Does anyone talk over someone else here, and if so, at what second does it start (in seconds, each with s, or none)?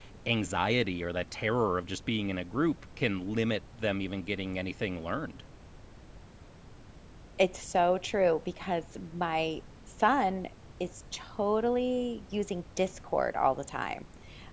none